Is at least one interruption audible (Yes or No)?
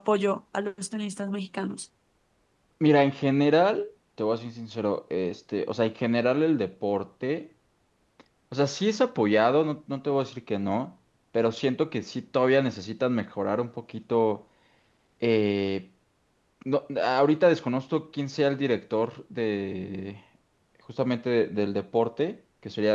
No